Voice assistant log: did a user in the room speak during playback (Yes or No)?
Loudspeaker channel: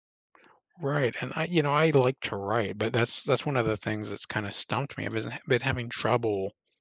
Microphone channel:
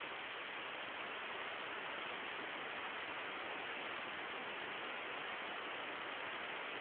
No